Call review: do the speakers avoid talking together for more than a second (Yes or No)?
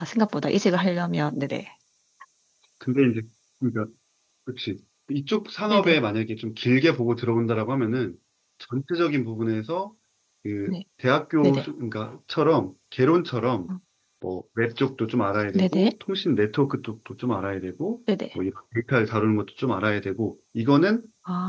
Yes